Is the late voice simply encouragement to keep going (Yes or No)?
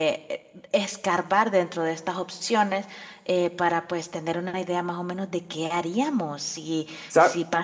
Yes